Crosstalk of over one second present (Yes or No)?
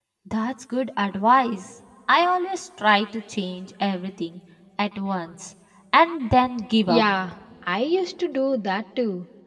No